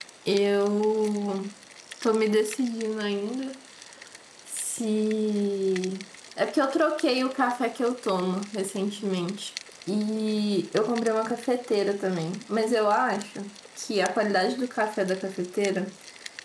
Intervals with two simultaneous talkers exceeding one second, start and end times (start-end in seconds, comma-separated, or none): none